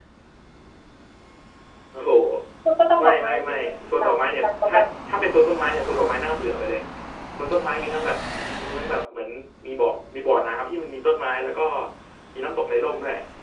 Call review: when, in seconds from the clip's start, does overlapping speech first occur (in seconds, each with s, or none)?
3.0 s